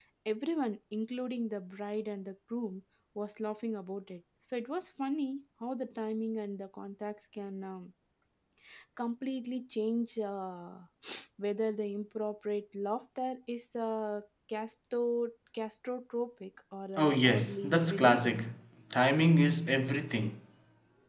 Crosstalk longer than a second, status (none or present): present